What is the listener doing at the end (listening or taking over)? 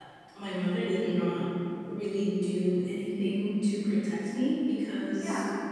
listening